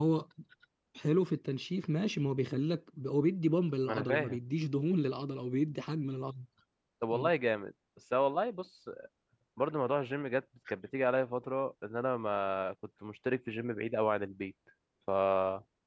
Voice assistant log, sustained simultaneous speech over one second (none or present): none